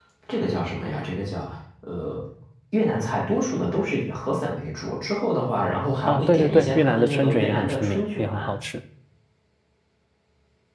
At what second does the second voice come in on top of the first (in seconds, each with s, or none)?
6.1 s